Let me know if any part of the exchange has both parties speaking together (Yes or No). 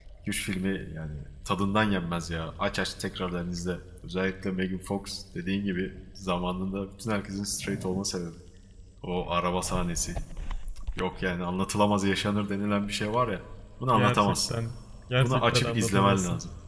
Yes